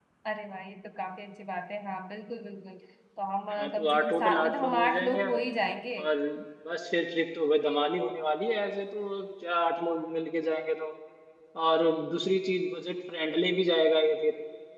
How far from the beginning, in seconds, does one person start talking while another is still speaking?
3.5 s

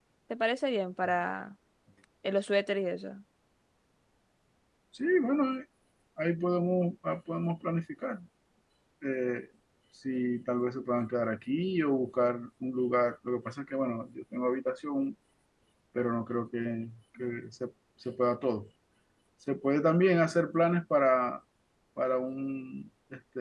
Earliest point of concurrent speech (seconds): none

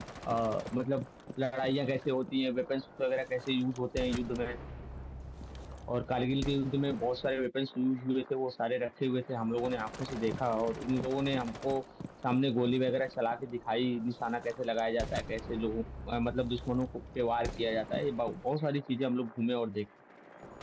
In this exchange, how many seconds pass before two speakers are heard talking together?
none

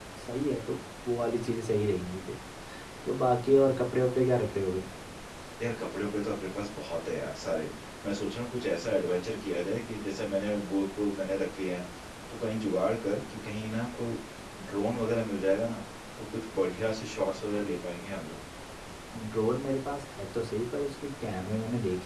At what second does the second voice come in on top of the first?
none

